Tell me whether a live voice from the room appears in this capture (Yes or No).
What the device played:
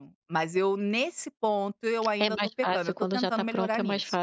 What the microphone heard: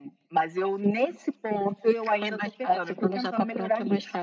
No